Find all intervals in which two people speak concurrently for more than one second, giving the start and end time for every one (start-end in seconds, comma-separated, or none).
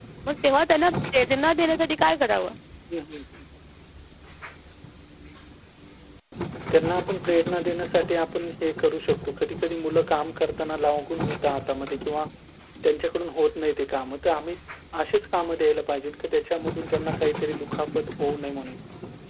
none